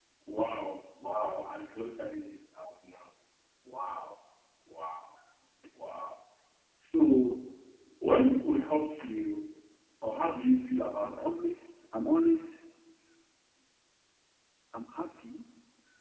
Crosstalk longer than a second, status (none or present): none